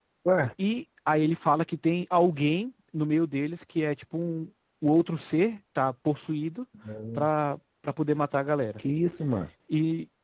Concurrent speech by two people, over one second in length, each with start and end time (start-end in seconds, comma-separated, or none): none